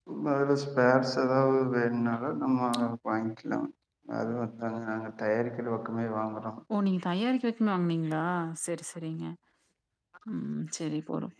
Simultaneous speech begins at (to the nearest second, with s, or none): none